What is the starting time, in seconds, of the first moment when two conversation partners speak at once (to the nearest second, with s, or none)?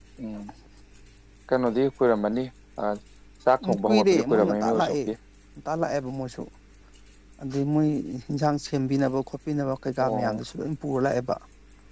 4 s